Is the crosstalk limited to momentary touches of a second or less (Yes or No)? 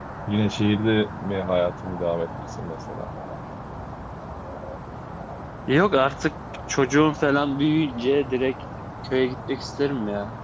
Yes